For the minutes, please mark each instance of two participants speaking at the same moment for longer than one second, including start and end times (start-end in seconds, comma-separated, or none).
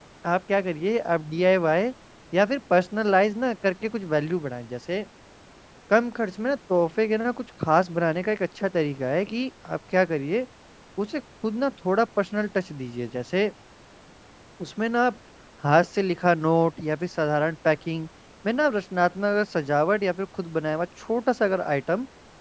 none